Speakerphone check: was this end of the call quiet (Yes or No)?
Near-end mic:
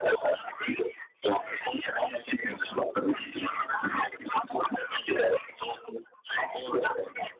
Yes